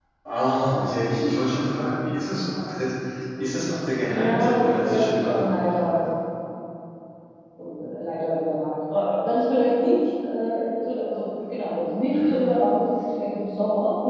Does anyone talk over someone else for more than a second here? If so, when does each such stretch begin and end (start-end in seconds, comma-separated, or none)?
4.1-6.1